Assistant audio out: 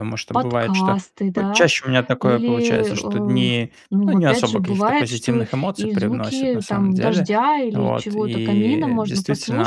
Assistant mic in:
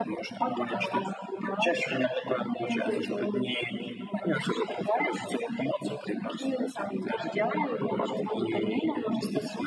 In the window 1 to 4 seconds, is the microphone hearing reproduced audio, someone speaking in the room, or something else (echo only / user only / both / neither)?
echo only